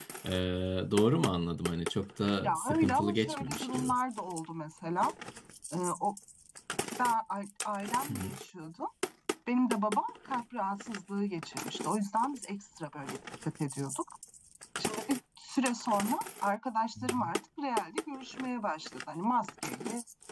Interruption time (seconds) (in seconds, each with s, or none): 2.4 s